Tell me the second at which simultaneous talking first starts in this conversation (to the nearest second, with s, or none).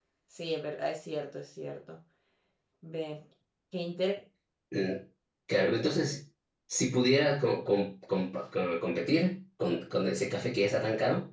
none